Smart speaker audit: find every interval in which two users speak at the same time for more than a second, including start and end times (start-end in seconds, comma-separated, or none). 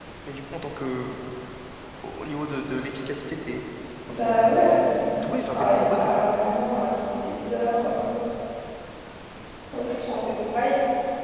4.1-6.2